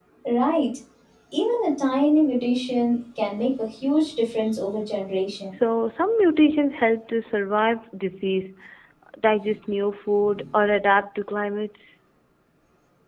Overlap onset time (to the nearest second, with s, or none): none